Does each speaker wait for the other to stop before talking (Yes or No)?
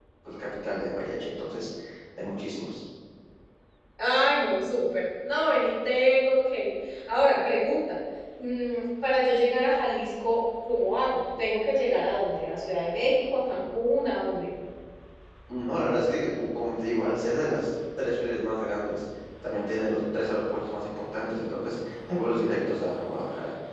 Yes